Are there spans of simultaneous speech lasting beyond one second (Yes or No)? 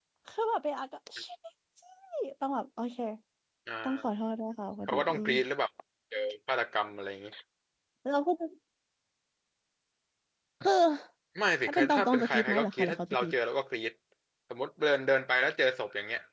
Yes